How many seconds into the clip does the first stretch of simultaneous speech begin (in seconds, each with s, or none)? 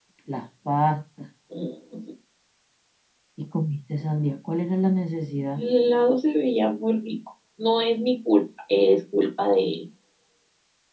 none